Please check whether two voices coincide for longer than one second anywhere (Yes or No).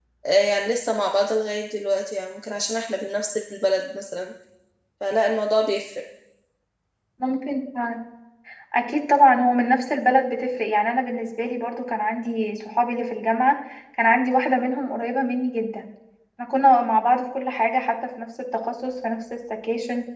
No